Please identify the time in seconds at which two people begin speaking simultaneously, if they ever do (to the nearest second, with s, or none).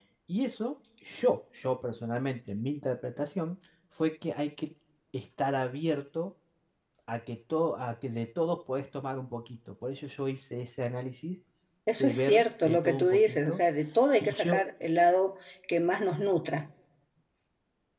12 s